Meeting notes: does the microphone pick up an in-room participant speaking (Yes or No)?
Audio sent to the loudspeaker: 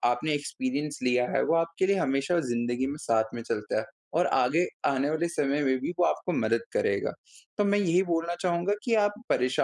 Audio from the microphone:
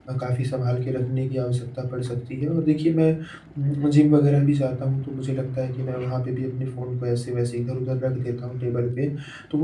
Yes